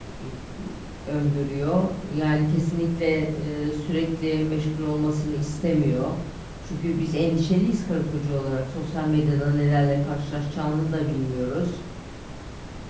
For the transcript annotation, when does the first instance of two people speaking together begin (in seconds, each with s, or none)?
none